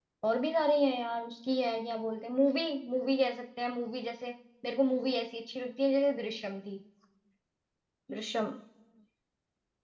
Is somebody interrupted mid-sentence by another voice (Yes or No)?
No